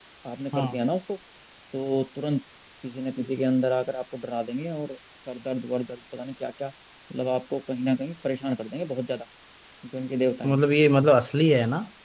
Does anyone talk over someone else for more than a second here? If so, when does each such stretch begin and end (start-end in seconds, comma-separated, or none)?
none